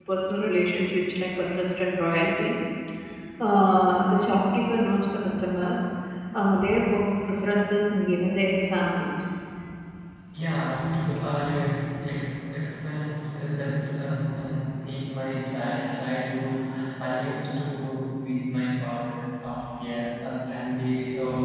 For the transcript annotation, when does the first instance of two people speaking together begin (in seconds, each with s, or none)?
none